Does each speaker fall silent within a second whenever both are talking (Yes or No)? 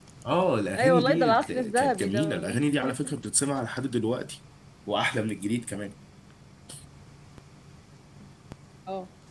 No